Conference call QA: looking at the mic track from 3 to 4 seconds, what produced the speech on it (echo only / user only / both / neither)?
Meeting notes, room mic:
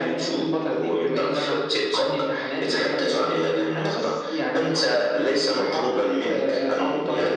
echo only